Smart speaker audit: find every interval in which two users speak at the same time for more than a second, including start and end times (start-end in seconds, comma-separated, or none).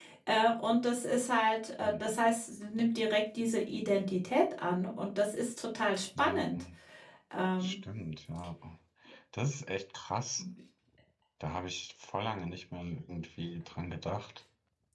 none